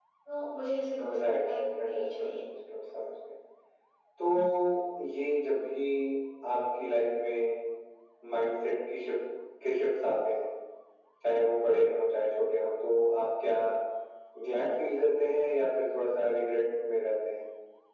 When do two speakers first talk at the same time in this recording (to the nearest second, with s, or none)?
1 s